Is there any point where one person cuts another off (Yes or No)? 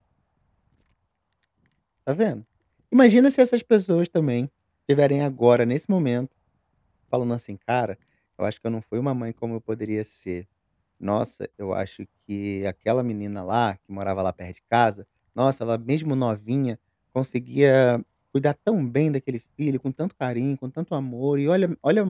No